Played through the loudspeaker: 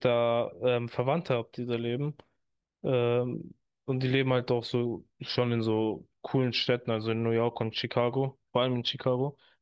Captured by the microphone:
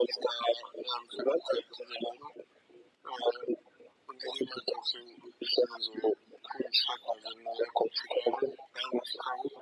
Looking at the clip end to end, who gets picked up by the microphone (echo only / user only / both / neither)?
echo only